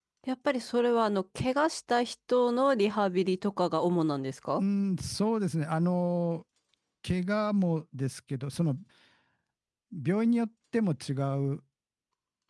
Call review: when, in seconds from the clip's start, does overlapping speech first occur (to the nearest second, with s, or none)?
none